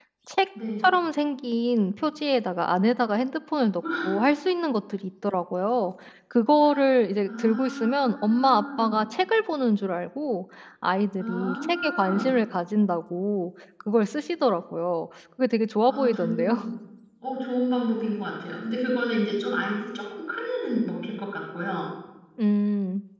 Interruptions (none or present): present